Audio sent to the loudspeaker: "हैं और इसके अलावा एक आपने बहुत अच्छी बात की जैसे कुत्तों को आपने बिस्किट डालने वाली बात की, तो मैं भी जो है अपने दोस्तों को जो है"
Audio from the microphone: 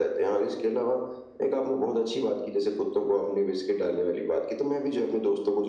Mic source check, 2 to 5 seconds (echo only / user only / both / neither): echo only